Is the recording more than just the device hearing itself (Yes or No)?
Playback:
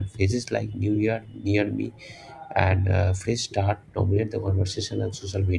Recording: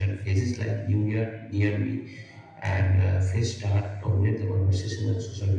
No